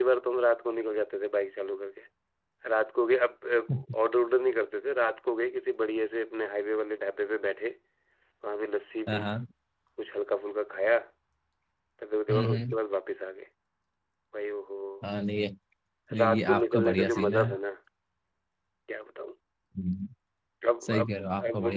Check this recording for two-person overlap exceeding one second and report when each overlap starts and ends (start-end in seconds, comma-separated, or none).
16.2-17.4